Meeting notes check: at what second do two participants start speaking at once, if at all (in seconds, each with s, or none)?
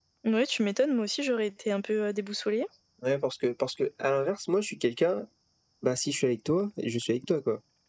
none